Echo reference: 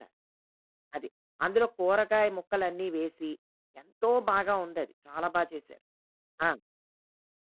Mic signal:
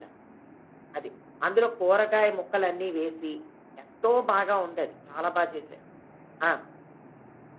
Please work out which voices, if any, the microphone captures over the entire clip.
echo only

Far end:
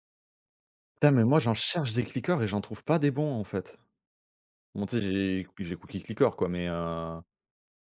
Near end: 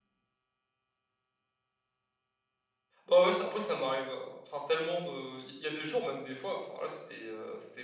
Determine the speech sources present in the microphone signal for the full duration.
user only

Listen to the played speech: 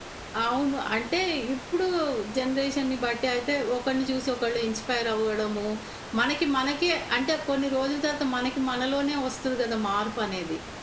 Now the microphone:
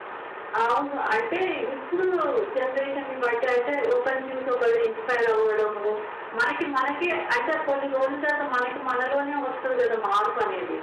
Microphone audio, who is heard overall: echo only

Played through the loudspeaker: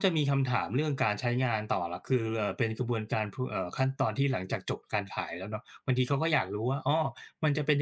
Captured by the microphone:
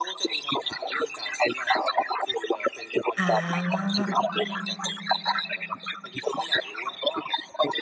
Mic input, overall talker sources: both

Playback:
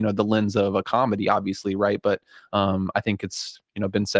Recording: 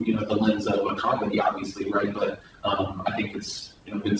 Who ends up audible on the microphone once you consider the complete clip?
echo only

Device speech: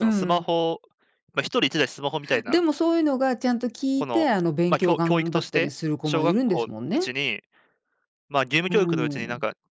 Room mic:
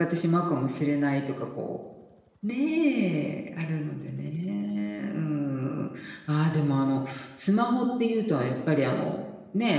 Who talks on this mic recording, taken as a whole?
user only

